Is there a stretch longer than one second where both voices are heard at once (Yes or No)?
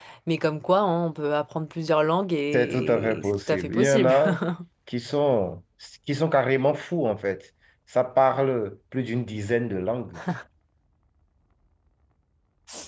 Yes